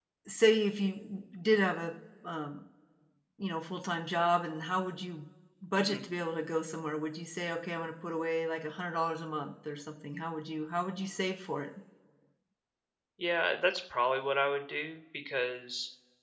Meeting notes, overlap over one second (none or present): none